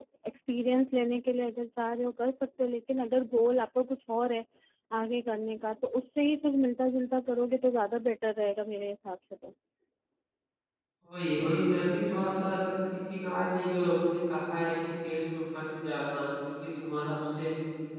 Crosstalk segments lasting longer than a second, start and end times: none

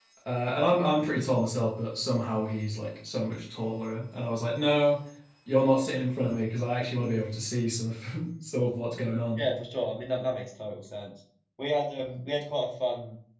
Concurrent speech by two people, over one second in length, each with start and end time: none

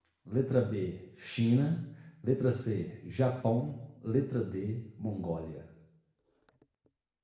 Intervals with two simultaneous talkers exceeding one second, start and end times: none

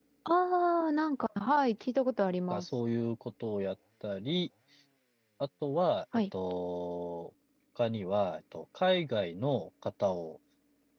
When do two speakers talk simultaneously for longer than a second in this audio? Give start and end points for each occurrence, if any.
none

